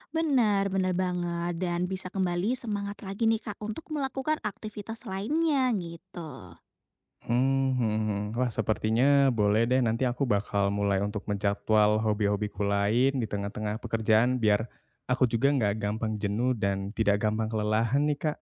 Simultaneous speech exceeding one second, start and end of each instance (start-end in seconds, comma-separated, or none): none